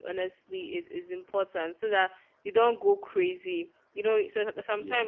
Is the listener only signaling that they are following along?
Yes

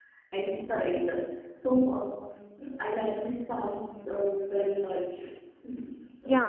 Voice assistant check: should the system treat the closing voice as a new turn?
Yes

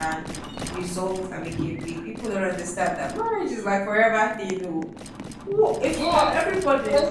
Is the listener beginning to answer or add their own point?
Yes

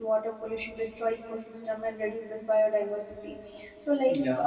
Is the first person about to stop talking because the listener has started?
No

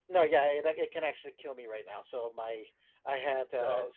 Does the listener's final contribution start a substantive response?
No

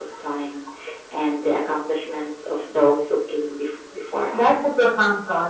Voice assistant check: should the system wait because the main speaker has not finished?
No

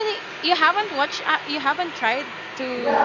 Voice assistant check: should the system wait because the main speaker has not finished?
No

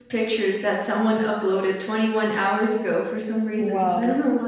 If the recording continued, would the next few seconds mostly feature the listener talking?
Yes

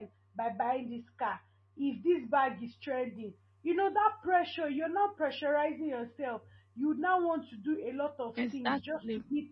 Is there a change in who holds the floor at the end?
No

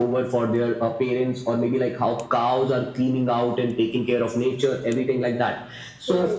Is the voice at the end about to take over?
No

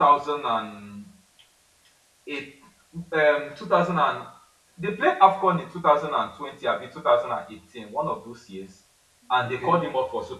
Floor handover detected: No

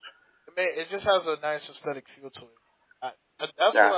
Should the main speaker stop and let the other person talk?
No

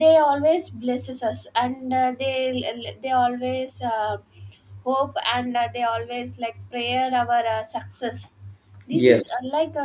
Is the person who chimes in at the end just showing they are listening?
Yes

